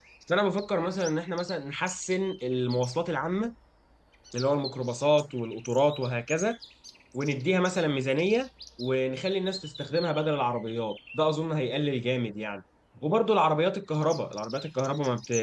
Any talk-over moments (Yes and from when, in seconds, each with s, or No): No